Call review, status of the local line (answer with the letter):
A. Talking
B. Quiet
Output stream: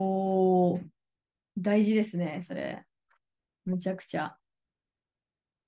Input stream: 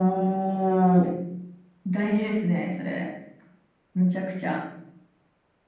B